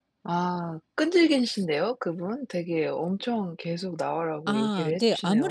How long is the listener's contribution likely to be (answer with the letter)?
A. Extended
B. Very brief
A